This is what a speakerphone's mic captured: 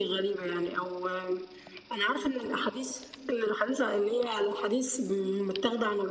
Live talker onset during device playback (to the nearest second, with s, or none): none